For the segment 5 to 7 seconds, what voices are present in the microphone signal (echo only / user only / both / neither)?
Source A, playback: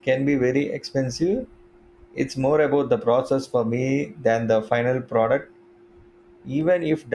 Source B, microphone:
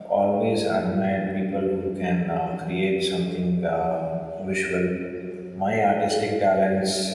user only